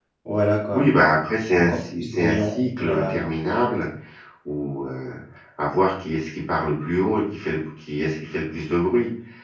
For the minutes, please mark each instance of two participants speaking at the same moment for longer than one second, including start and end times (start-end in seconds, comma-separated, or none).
1.5-3.2